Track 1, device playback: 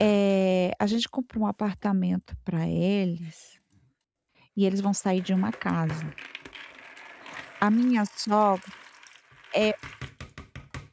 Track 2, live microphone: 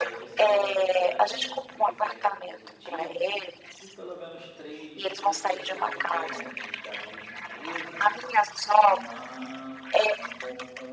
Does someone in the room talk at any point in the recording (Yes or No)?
Yes